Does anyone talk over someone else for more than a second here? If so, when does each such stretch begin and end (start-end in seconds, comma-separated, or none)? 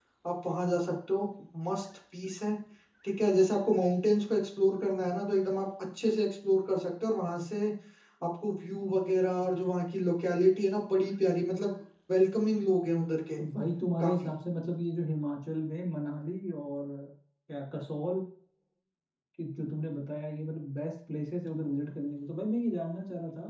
none